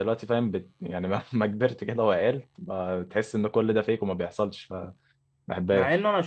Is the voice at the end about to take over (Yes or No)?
Yes